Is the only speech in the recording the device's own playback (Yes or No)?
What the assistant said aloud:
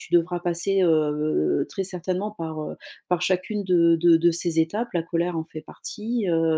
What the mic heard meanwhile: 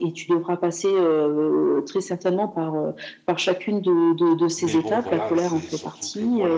No